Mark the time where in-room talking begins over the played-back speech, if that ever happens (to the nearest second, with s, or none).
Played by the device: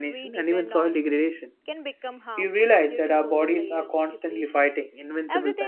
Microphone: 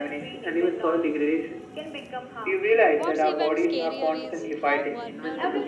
3 s